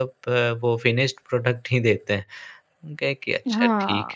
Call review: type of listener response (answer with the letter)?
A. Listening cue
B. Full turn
B